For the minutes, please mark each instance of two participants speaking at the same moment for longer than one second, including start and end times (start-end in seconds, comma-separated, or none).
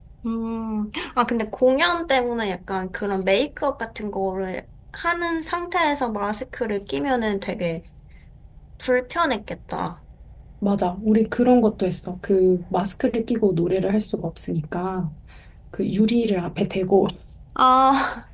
none